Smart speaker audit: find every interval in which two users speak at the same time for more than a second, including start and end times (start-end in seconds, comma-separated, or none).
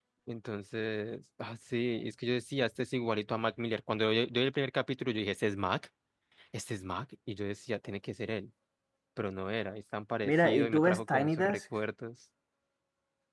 10.2-11.6